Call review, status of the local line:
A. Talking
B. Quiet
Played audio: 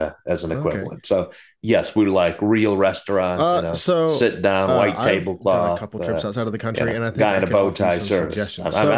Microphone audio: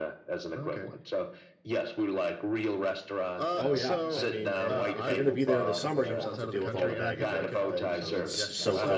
A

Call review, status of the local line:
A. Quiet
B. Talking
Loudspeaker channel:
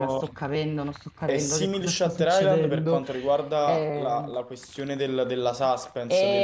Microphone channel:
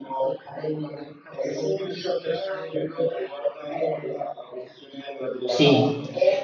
B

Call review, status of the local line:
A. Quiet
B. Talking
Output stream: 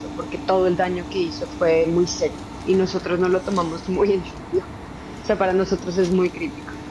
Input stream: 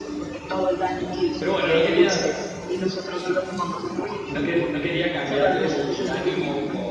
B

